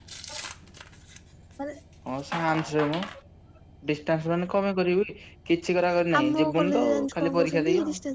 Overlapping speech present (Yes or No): Yes